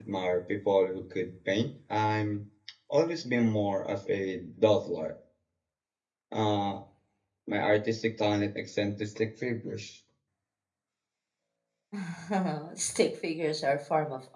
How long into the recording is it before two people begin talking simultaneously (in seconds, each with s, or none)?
none